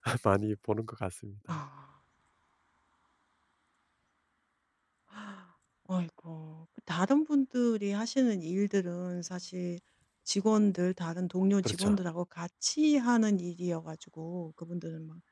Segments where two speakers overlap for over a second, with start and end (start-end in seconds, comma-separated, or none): none